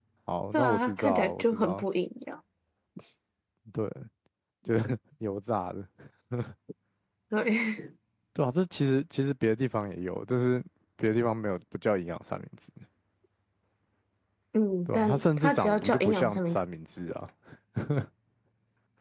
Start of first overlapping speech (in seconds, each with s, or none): 0.5 s